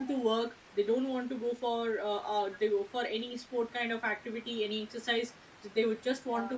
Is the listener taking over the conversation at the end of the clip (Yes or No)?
No